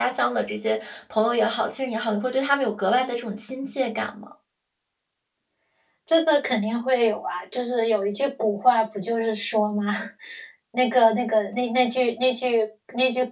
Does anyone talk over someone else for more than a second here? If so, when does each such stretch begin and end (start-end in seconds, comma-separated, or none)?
none